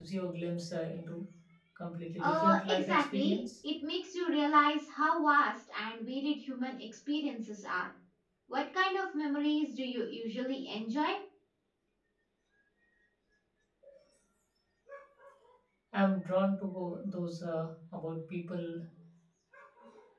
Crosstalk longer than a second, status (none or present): present